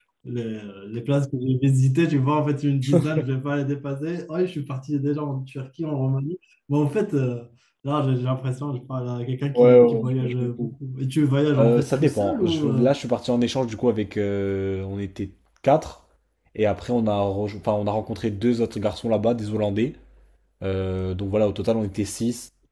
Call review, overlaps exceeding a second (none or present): present